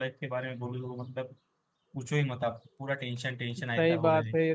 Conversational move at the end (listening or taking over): taking over